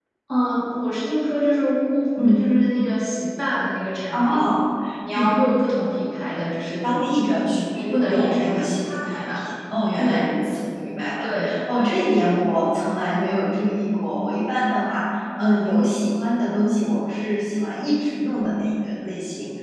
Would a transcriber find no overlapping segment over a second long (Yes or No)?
No